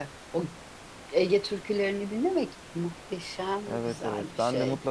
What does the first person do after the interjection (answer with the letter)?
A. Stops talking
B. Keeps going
A